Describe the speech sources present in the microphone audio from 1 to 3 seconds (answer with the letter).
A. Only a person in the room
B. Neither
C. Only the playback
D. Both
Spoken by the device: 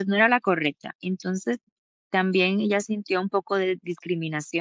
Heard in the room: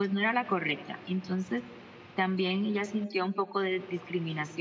C